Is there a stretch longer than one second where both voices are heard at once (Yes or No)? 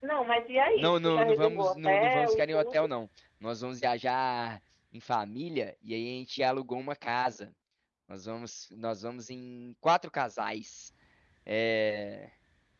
Yes